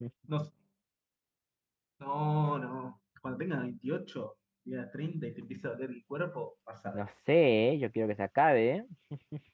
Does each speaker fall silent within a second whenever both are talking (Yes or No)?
Yes